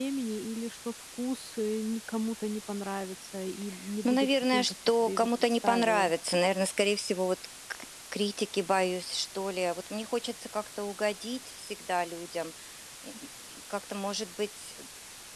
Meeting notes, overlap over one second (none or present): present